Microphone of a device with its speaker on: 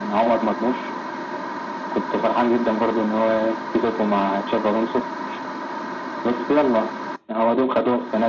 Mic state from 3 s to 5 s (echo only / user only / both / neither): echo only